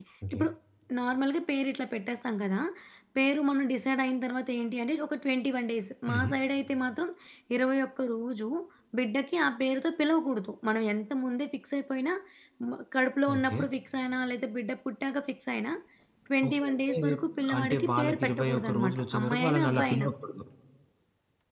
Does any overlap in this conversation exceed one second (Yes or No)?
Yes